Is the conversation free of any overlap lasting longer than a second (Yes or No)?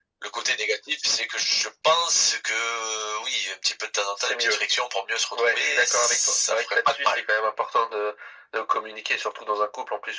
No